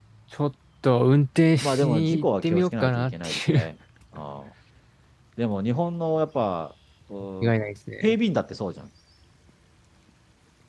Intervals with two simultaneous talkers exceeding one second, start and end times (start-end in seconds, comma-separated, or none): 1.6-3.6